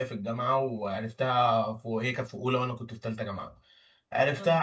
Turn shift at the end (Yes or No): No